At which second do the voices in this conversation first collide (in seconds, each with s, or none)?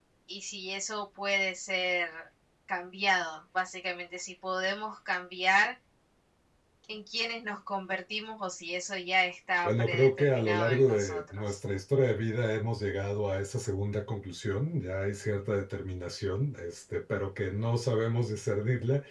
9.6 s